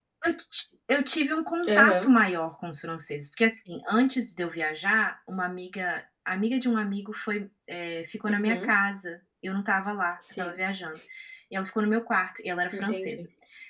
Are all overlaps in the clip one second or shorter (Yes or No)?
Yes